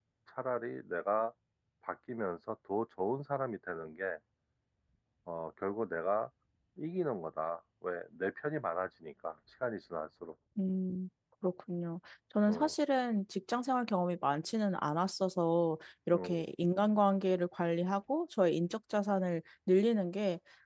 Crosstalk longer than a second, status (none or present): none